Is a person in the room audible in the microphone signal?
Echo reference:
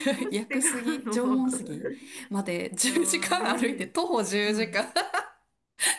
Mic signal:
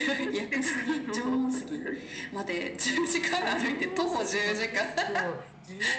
Yes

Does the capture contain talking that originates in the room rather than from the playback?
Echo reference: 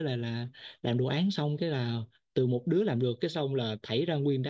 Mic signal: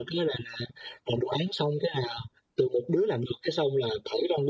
No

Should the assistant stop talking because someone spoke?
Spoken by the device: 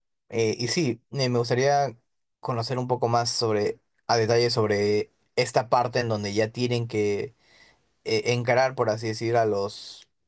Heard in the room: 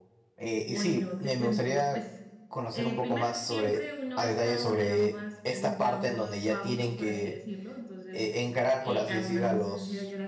Yes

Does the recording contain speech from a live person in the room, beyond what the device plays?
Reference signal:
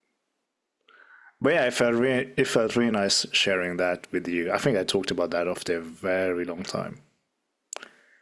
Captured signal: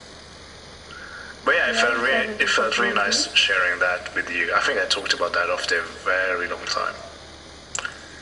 Yes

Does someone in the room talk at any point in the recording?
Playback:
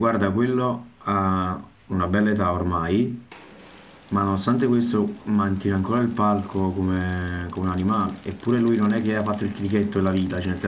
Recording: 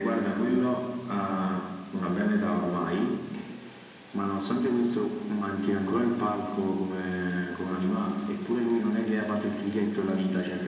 No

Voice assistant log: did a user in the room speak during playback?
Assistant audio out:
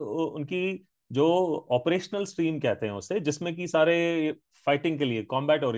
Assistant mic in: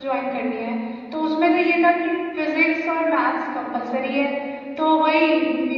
Yes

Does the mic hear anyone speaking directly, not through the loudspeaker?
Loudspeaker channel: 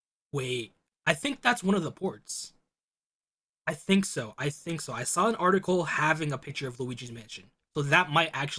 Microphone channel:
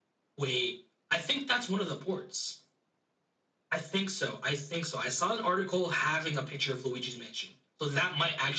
No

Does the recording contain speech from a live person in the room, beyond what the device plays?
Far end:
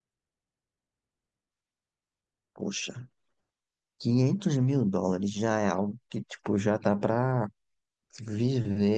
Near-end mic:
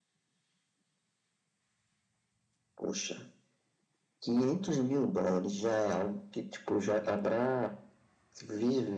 No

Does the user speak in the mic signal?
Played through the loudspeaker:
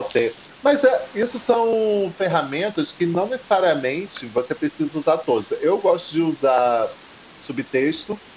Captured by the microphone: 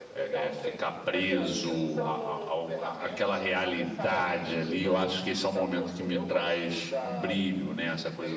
Yes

